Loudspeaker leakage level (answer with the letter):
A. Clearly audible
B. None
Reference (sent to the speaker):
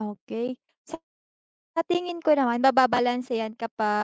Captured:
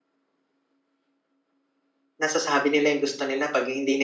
B